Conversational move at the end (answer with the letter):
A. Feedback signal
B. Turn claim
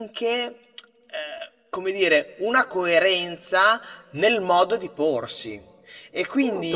A